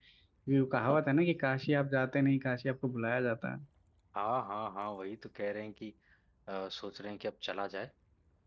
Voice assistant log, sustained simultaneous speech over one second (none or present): none